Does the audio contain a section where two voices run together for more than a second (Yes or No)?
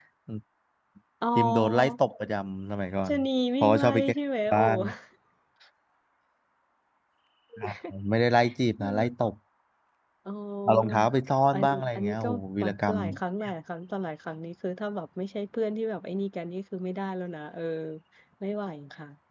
Yes